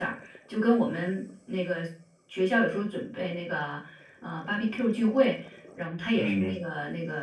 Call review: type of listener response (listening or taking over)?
listening